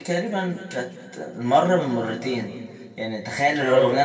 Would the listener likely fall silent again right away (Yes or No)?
Yes